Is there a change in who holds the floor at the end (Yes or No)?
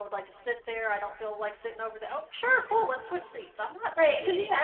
Yes